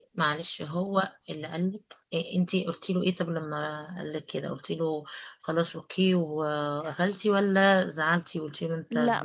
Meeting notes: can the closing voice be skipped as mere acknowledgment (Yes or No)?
No